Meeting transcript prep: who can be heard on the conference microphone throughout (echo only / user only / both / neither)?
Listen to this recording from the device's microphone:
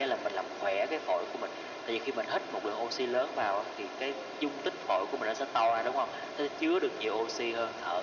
echo only